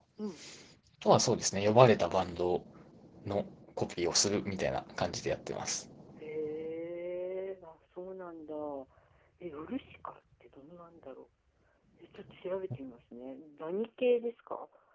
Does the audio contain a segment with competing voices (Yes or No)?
No